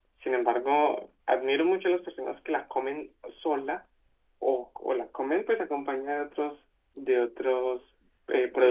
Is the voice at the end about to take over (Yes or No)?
Yes